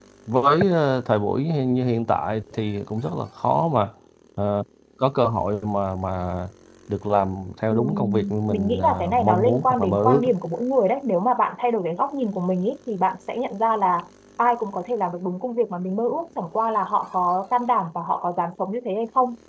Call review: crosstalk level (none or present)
present